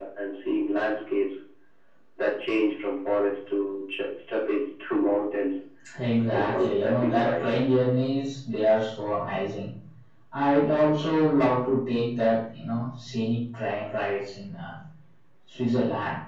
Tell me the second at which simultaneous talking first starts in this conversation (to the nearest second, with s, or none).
6 s